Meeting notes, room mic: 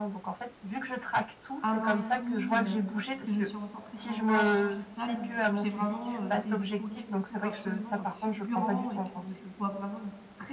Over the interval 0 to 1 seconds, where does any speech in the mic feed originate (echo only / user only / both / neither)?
echo only